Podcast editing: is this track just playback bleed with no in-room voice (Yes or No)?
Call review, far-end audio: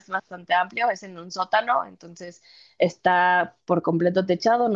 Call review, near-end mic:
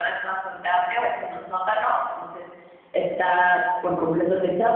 Yes